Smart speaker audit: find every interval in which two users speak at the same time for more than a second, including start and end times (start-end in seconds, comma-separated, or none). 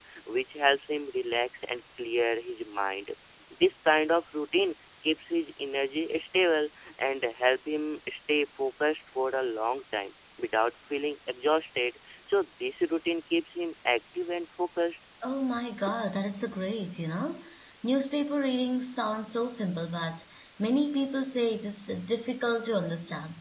none